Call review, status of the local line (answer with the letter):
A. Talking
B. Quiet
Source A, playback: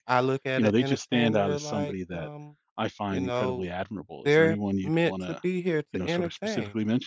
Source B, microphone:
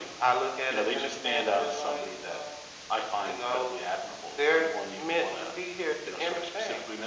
B